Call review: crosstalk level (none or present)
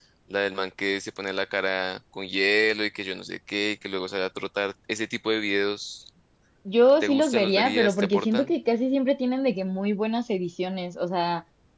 present